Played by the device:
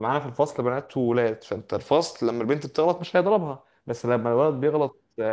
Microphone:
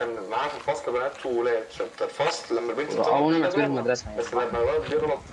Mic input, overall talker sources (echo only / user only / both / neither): both